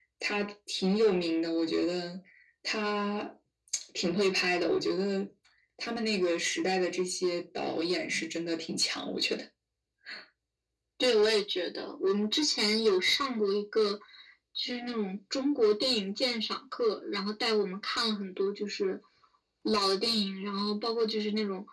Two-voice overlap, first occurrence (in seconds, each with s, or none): none